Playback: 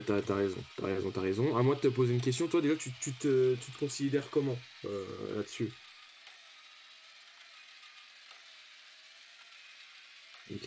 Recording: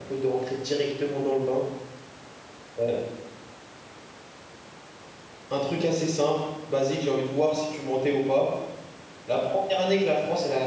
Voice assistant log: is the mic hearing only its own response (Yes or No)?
No